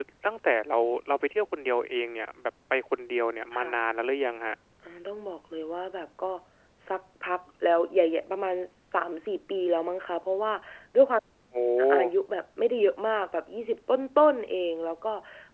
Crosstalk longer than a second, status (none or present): none